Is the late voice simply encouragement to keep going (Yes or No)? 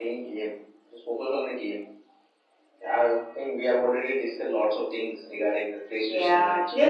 No